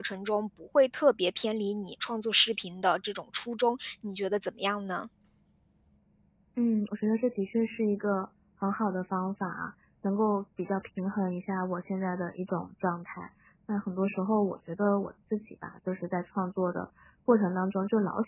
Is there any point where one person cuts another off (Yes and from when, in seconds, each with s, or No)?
No